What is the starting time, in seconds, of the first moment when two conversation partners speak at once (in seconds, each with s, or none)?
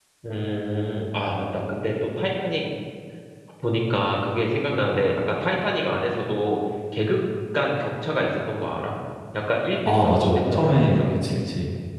9.9 s